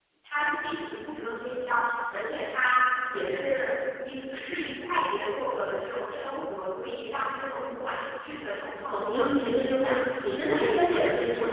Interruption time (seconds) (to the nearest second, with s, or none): 9 s